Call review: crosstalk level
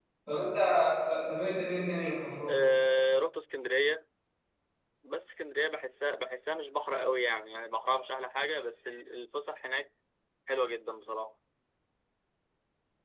none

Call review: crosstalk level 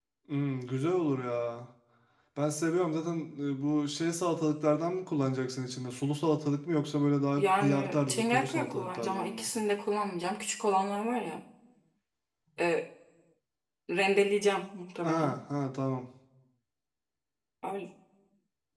present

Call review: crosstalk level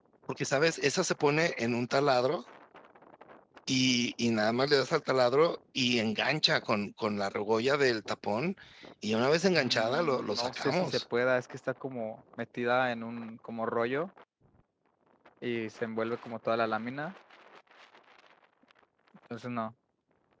present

